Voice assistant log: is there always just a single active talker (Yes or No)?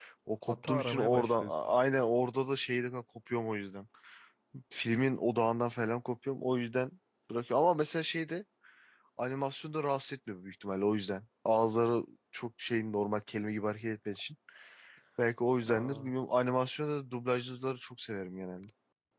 No